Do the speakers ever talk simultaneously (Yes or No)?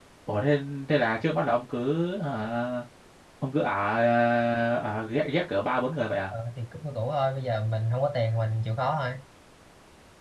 No